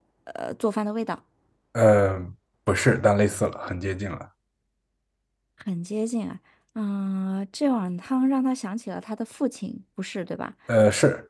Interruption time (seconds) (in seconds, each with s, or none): none